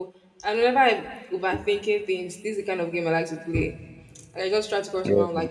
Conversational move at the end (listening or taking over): listening